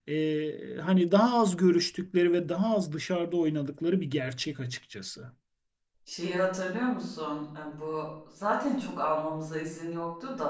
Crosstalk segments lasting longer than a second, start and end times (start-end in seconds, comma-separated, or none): none